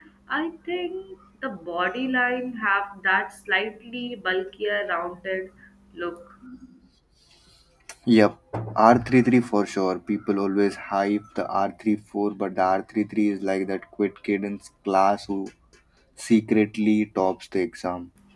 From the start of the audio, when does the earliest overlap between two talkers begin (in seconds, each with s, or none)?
none